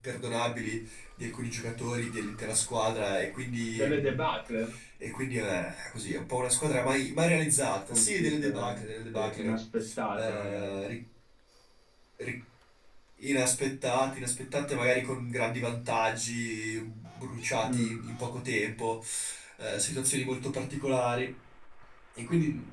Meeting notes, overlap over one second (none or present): present